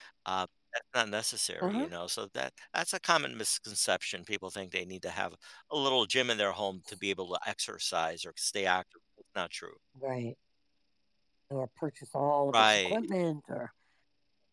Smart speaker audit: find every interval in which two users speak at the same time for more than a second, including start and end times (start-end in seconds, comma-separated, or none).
none